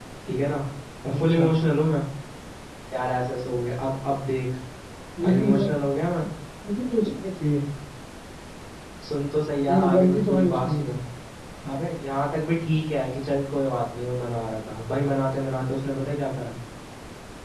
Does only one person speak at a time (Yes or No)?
No